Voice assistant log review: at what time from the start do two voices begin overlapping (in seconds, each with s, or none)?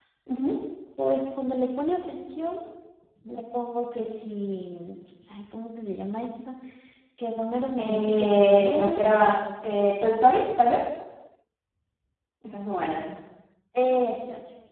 7.8 s